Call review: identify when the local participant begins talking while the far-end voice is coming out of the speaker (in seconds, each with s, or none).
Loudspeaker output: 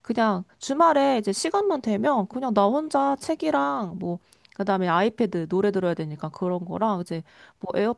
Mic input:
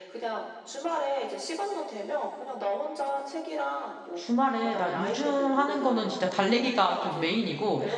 4.1 s